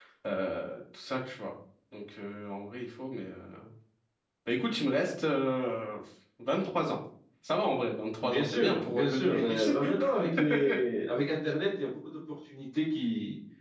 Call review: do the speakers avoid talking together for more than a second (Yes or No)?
No